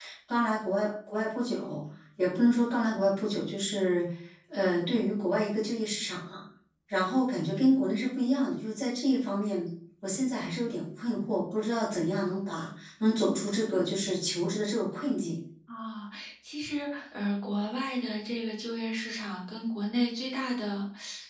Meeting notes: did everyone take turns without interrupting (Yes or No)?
Yes